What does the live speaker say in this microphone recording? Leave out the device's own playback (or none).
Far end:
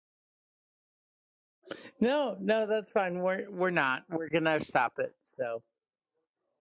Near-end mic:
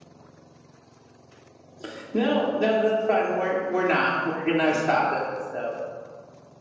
none